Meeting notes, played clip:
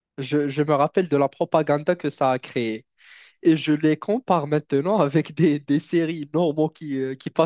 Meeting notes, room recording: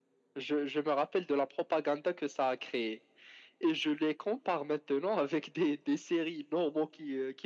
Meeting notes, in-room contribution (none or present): none